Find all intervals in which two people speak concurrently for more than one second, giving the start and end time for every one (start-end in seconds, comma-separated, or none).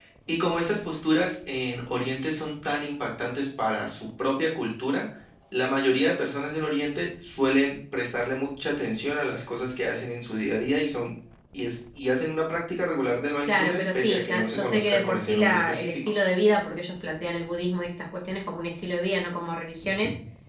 13.5-16.0